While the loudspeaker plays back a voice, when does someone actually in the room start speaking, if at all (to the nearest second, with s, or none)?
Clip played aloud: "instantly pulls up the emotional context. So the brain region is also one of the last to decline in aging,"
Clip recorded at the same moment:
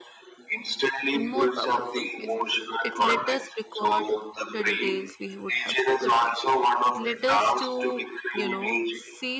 1 s